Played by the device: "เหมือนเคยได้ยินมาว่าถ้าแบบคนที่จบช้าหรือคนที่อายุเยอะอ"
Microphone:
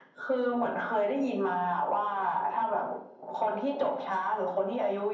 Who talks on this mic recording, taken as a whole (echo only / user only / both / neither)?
echo only